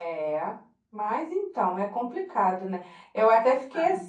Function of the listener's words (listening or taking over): listening